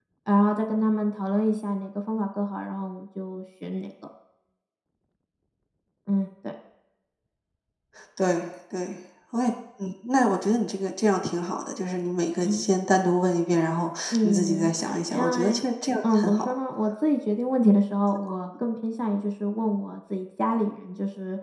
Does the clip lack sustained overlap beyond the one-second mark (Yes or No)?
No